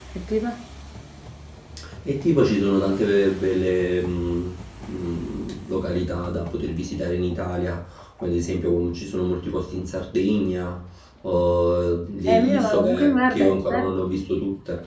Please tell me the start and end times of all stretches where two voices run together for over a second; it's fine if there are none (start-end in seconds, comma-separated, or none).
12.3-13.8